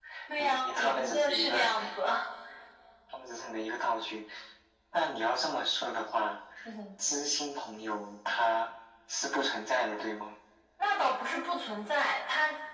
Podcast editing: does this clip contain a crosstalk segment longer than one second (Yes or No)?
Yes